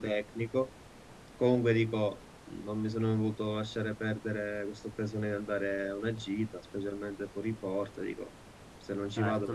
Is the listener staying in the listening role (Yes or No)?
No